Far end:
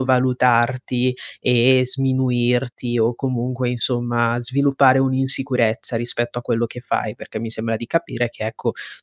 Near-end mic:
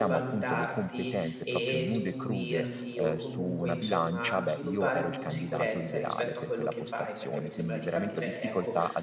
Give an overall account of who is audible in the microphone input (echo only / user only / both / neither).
both